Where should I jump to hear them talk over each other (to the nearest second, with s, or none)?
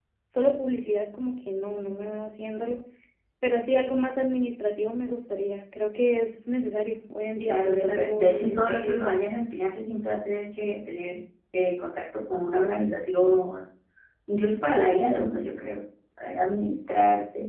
7 s